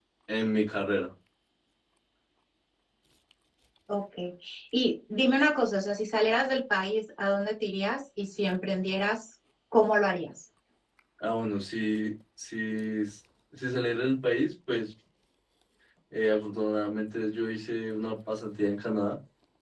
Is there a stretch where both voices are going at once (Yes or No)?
No